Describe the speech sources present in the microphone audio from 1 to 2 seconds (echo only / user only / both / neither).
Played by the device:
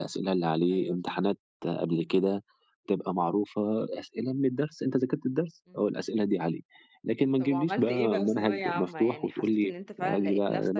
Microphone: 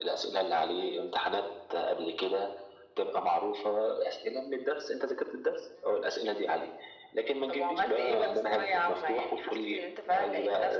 echo only